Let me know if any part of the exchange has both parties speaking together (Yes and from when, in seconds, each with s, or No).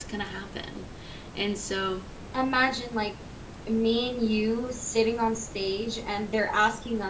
No